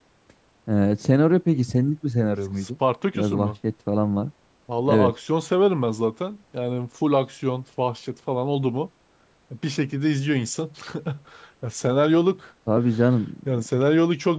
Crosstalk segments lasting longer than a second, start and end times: none

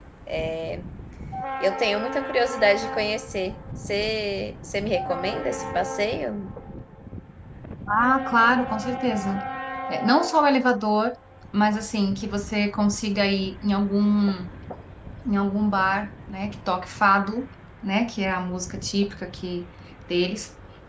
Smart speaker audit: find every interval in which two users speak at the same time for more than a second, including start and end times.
none

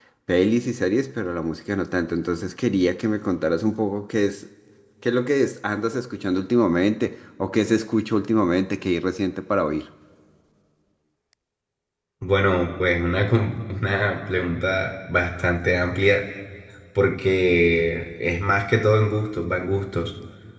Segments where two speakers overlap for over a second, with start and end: none

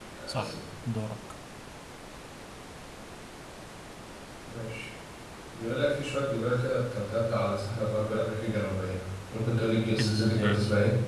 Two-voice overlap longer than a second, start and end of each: none

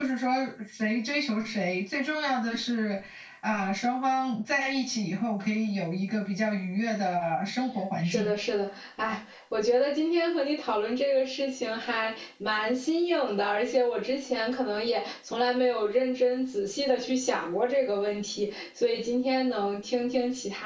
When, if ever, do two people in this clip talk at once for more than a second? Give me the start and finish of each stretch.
none

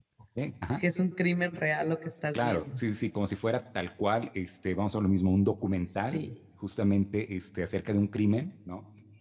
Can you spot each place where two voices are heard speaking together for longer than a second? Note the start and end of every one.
none

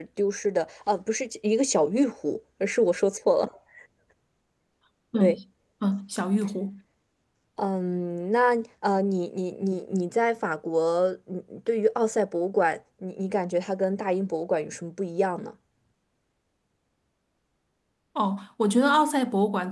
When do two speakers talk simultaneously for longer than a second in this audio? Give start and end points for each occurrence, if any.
none

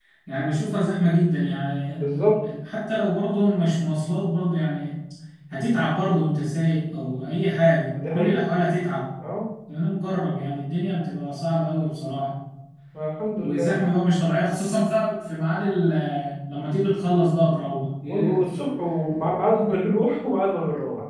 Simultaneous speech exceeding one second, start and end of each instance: none

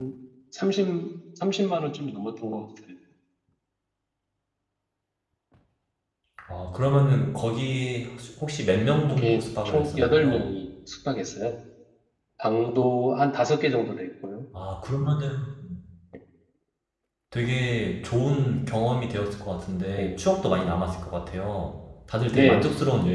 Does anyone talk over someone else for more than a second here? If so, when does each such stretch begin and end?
9.0-10.5

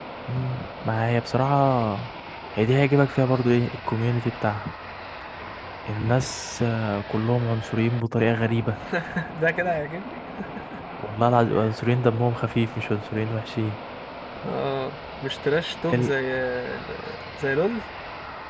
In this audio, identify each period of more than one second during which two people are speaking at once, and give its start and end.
none

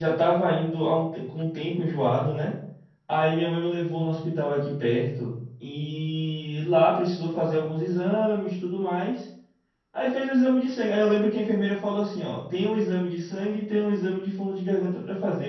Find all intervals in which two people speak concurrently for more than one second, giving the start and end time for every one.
none

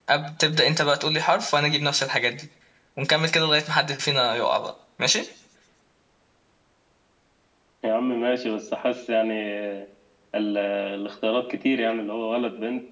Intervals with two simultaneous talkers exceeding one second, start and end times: none

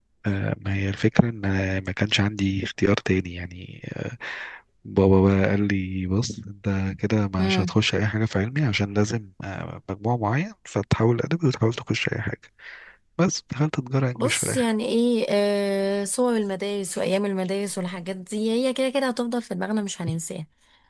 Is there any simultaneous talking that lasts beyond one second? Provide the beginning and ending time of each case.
none

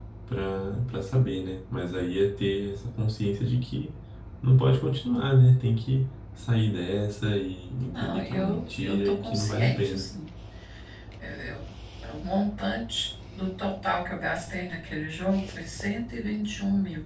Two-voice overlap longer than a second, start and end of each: 7.9-10.1

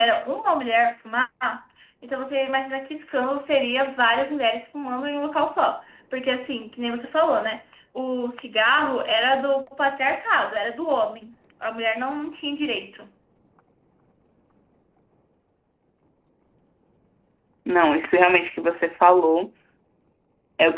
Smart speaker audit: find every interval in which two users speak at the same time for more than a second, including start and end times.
none

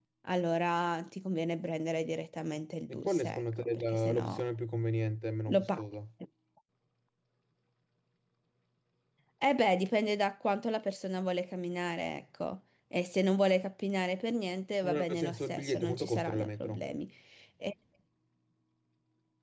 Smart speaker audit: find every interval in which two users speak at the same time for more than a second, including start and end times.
2.9-4.4, 14.8-16.9

